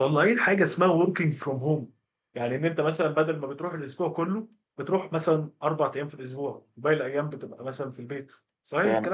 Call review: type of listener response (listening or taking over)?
taking over